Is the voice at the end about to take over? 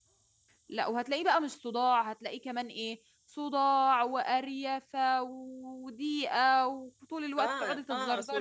Yes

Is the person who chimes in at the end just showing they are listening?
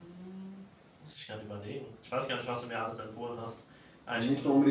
No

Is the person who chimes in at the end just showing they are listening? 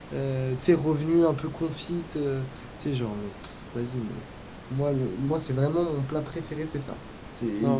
No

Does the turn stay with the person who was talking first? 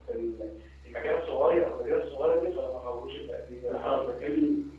No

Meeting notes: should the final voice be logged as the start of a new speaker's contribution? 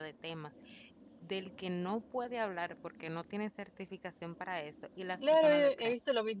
Yes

